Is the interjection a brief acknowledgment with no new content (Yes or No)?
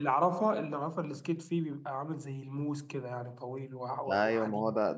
No